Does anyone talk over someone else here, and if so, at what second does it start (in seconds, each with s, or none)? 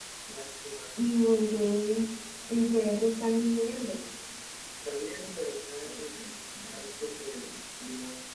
none